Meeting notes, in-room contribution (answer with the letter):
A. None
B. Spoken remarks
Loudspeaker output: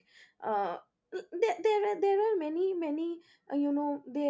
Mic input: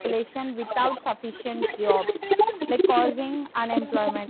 B